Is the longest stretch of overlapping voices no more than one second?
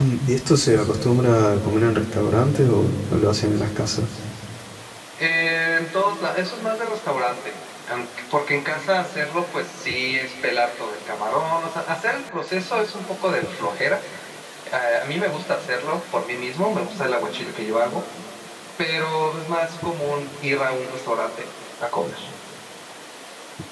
Yes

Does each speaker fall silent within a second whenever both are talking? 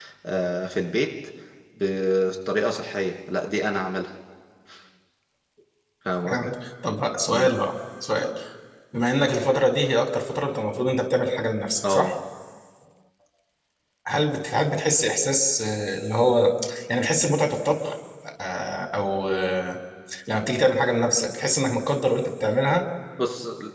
Yes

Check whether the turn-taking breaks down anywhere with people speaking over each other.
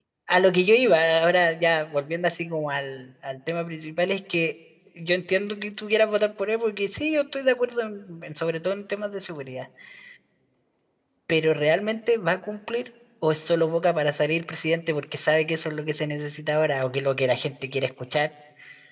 No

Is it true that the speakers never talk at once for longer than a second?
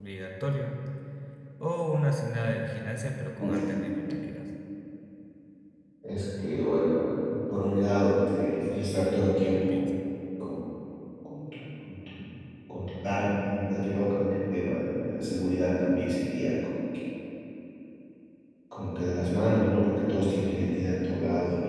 Yes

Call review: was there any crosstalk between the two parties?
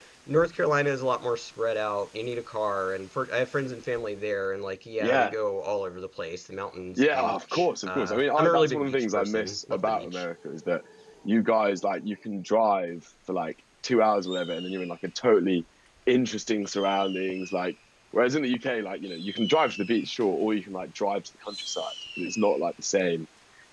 Yes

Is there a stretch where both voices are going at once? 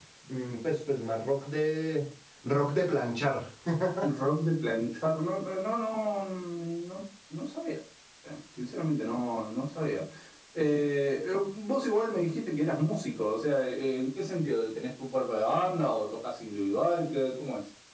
No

